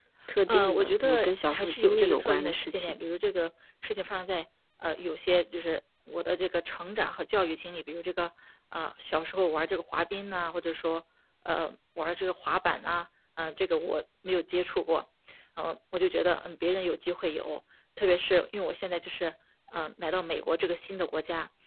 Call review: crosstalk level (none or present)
present